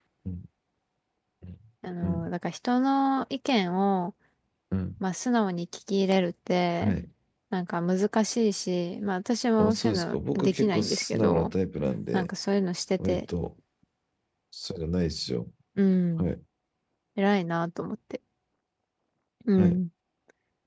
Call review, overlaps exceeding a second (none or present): present